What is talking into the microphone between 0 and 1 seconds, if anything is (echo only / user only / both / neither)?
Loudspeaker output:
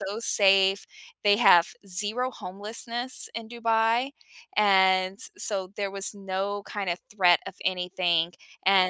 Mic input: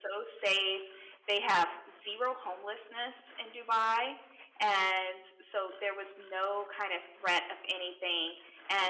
echo only